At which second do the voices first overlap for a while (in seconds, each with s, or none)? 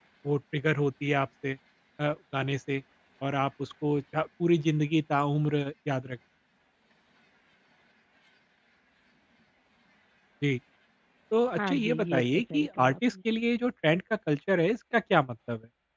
11.6 s